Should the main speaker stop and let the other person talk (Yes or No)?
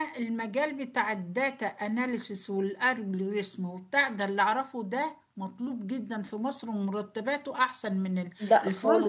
No